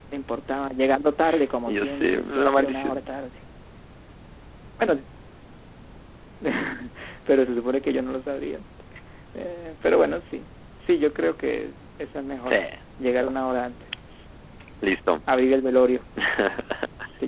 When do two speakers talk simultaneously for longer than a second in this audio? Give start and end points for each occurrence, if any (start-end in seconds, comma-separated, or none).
1.7-3.1